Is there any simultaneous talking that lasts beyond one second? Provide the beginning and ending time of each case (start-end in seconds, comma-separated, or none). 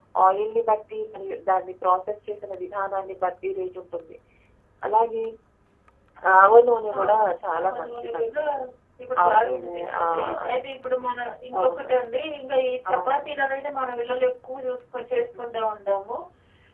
7.0-8.4, 9.2-10.7